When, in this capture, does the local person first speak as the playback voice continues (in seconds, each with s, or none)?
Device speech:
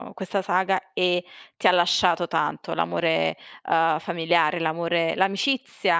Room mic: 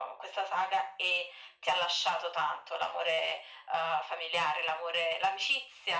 none